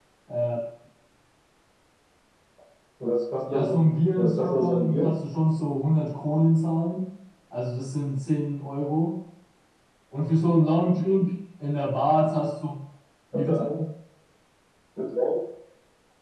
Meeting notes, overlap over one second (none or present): present